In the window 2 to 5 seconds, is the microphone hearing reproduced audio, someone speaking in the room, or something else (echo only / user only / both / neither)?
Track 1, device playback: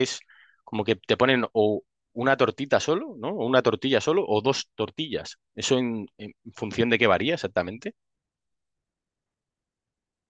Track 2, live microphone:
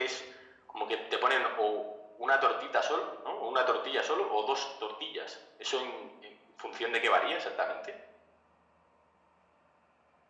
echo only